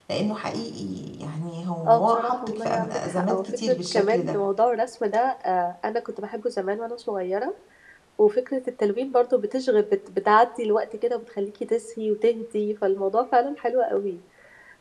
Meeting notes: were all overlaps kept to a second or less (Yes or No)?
No